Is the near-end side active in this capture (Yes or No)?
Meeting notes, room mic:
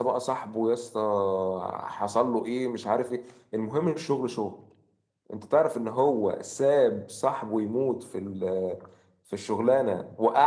No